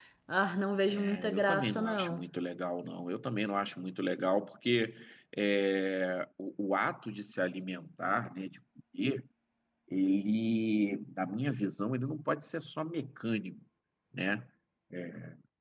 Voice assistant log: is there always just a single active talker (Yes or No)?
No